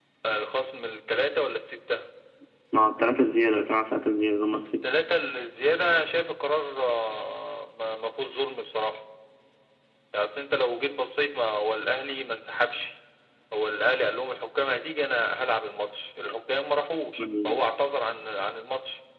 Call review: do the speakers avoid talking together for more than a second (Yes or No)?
Yes